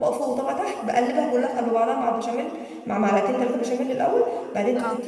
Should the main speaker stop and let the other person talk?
No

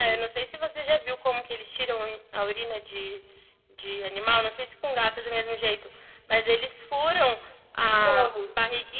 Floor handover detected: No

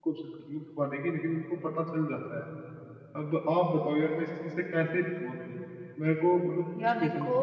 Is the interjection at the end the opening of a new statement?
No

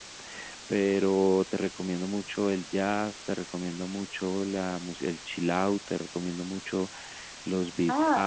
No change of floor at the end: No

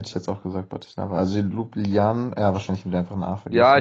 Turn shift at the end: Yes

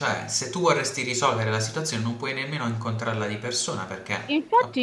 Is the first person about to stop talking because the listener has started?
Yes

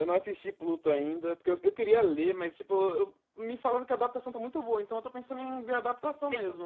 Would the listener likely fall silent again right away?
No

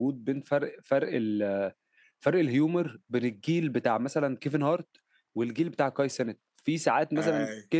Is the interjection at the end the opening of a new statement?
No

